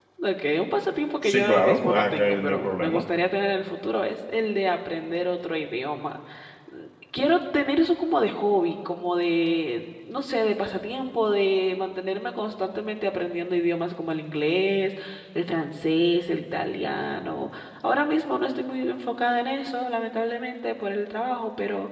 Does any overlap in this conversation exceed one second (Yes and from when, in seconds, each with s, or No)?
Yes, from 1.3 s